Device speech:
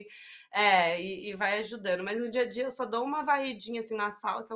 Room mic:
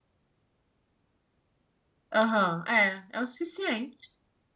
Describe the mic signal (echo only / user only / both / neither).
user only